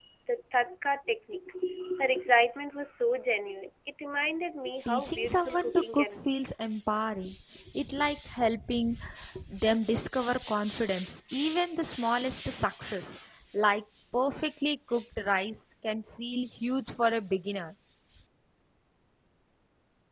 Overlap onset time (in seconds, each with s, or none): 4.9 s